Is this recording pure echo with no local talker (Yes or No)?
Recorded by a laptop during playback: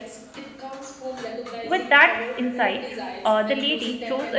No